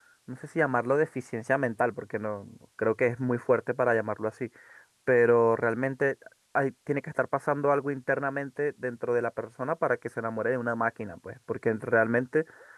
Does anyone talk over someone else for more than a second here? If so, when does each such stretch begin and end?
none

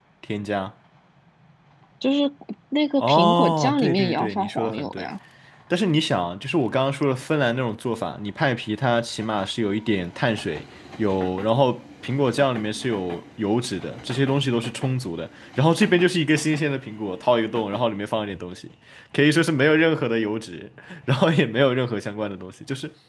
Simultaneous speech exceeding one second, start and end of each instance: 3.0-5.1

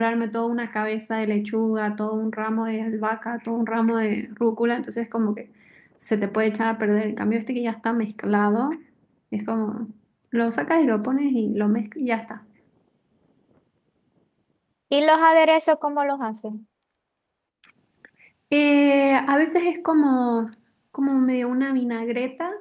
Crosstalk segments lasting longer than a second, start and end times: none

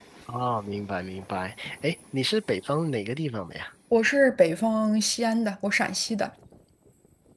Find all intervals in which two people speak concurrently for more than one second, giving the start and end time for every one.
none

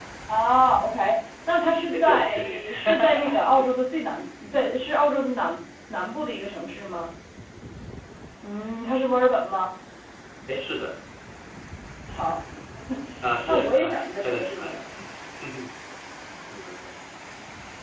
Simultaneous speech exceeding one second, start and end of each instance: 1.9-3.7, 13.4-14.8

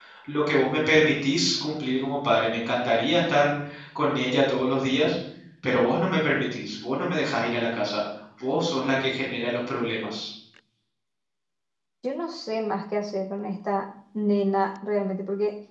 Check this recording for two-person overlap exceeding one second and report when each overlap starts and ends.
none

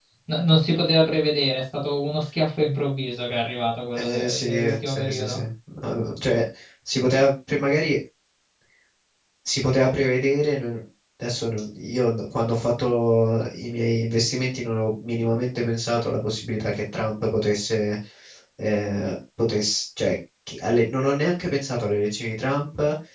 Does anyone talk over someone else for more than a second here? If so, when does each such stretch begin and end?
3.9-5.4

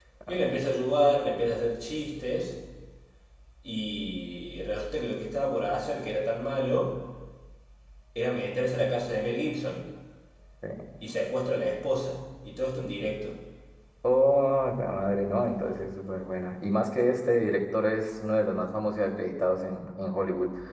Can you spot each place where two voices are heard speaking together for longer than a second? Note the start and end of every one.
none

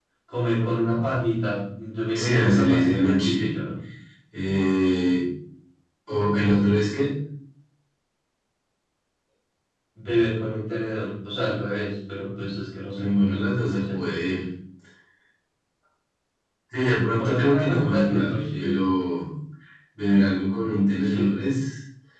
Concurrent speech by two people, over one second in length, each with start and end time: 2.2-3.5, 13.0-14.4, 17.2-18.8

